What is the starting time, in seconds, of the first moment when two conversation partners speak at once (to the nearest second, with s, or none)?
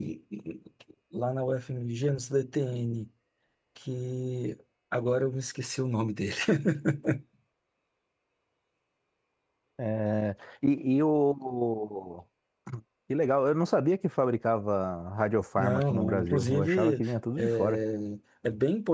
16 s